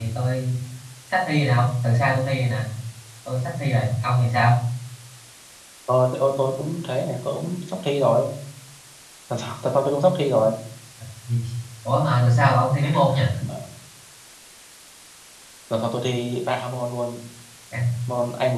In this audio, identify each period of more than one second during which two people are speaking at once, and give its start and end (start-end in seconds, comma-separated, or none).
none